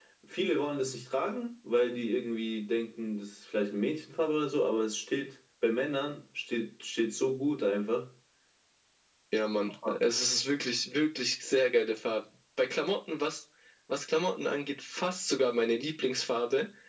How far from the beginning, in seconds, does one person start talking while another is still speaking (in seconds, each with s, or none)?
none